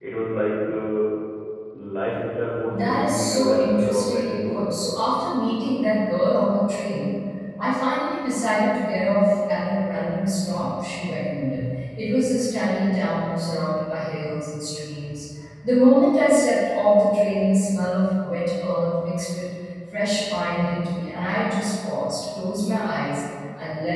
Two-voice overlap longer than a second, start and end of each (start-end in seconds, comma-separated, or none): 2.7-4.6